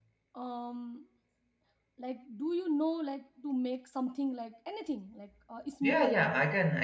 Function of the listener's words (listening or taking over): taking over